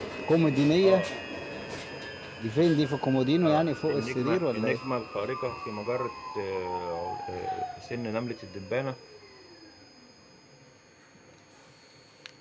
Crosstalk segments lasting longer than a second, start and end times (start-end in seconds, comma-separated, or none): 3.4-4.8